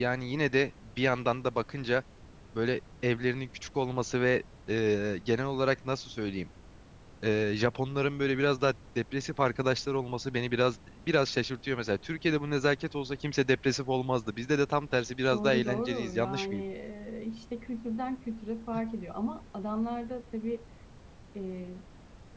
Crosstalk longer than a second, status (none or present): present